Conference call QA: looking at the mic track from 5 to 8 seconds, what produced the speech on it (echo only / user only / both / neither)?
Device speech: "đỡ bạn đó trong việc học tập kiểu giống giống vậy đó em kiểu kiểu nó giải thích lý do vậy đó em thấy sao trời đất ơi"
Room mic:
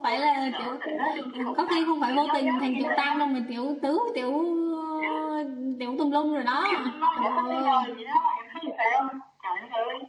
both